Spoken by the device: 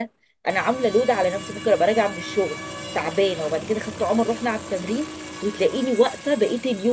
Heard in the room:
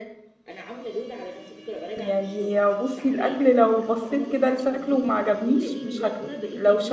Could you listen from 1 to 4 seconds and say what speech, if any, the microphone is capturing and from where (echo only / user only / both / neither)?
both